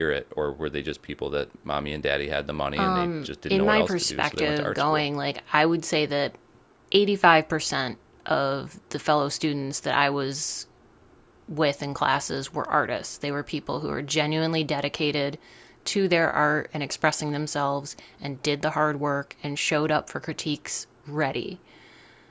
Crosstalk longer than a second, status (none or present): present